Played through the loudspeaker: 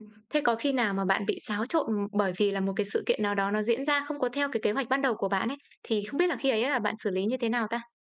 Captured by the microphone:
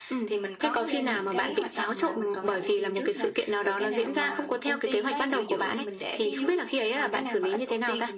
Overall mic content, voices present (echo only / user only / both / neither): both